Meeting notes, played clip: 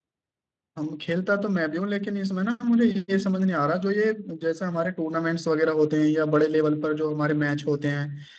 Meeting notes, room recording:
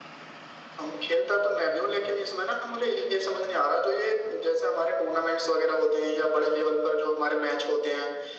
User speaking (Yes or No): No